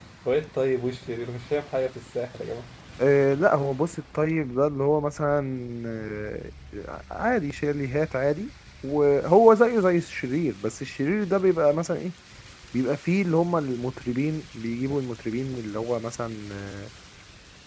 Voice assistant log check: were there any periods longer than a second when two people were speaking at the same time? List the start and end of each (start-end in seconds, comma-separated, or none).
none